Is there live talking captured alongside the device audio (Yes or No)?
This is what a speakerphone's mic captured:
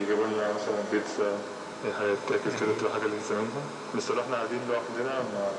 Yes